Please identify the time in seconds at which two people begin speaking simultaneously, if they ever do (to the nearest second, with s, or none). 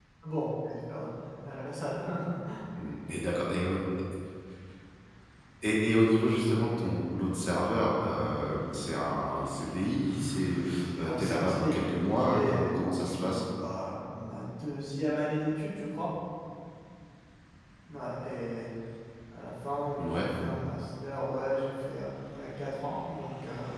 11 s